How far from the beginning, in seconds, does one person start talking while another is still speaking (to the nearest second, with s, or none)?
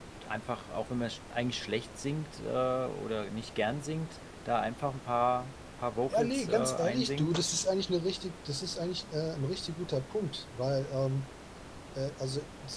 6 s